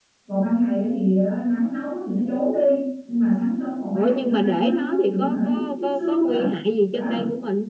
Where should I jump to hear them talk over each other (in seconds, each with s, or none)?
3.9 s